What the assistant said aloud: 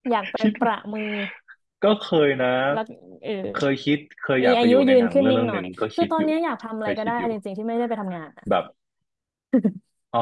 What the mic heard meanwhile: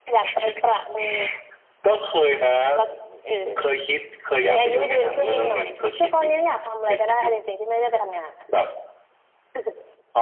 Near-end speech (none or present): none